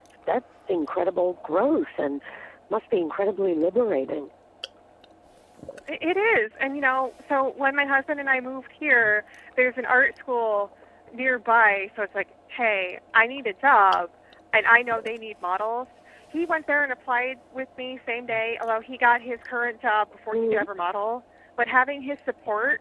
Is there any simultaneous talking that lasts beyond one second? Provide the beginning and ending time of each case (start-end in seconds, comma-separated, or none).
none